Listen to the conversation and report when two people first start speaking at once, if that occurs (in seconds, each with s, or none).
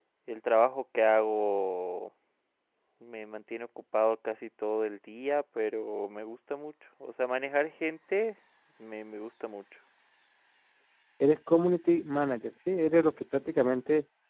none